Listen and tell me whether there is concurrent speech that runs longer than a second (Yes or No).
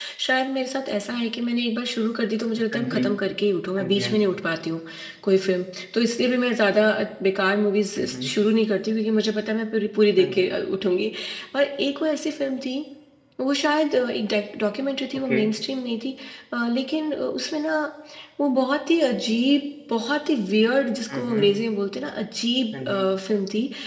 No